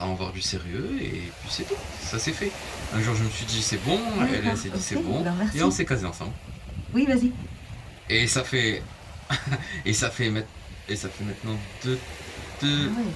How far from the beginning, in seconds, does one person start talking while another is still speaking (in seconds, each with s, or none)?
4.1 s